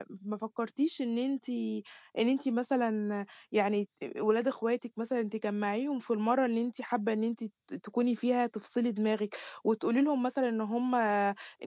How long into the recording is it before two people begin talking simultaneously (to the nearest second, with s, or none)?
none